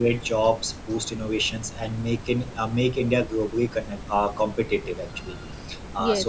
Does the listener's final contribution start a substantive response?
No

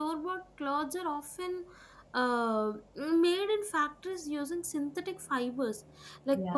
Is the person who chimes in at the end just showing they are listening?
Yes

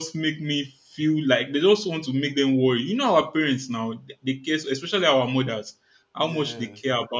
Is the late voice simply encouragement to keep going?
Yes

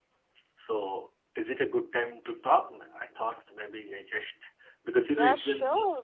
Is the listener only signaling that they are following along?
No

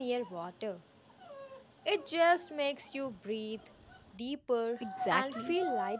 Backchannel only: No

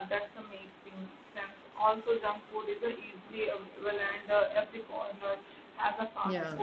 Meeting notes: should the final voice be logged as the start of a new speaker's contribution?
No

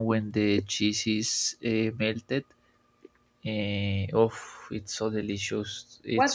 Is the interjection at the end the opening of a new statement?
Yes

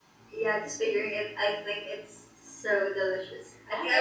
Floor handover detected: Yes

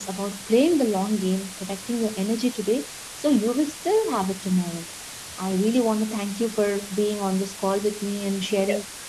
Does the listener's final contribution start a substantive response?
No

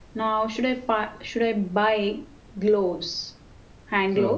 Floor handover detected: Yes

